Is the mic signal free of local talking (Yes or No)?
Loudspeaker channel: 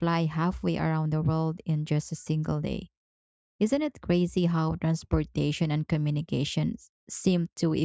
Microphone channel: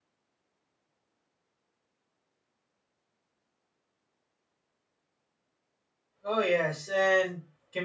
No